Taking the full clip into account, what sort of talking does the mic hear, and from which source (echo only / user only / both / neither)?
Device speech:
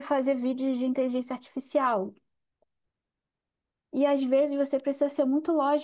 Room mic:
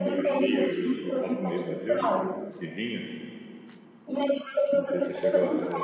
both